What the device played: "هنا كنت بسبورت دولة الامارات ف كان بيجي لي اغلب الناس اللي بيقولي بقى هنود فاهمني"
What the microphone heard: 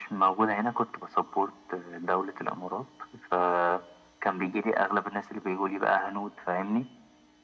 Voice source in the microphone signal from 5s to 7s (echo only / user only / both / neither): echo only